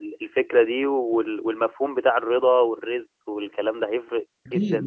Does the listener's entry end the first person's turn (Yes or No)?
Yes